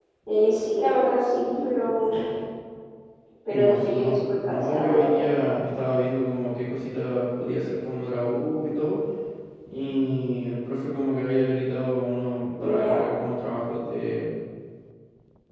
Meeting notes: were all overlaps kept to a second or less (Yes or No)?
No